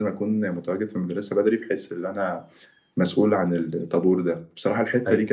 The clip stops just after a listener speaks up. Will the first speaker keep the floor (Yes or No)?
Yes